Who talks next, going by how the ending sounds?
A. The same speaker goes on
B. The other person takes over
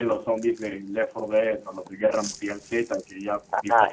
A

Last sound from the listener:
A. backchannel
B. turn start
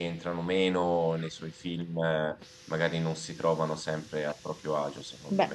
B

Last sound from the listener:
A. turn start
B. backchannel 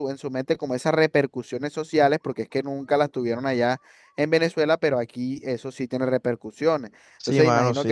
A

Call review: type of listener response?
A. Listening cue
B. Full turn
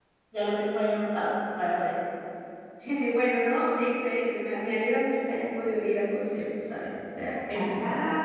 B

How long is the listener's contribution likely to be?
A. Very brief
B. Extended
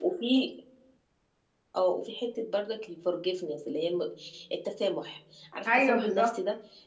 A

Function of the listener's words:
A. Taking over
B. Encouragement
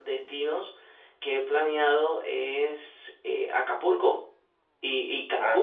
B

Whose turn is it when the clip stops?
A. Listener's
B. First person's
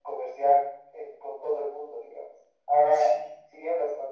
B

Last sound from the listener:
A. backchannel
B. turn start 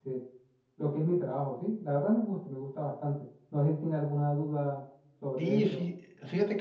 B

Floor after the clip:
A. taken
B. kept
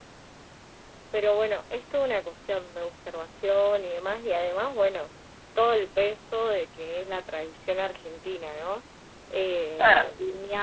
B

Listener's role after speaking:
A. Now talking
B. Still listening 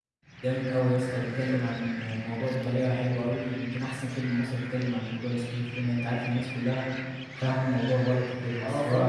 A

